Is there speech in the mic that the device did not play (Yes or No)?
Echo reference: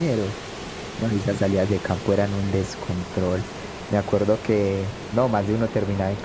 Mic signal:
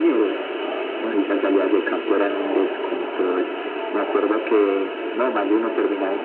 Yes